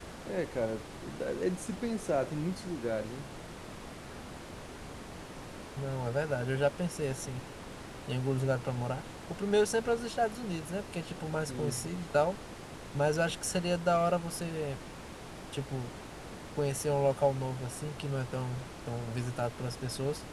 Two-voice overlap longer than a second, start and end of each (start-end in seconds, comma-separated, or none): none